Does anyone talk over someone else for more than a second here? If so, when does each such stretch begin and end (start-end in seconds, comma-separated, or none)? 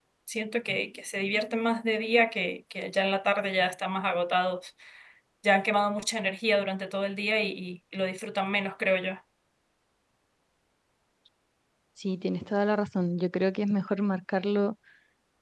none